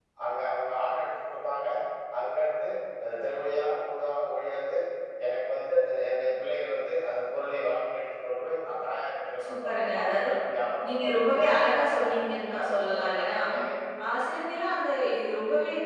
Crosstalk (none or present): present